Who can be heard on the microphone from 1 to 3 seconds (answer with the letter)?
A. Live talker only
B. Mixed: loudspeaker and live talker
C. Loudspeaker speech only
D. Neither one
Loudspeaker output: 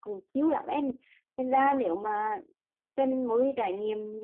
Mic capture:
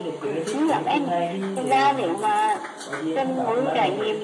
B